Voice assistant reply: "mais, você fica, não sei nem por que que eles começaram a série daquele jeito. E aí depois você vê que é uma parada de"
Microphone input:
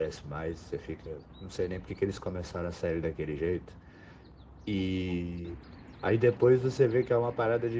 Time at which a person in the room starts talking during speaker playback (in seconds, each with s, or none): none